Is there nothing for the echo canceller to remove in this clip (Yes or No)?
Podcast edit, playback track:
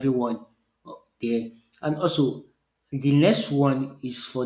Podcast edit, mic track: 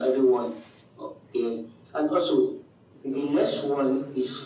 No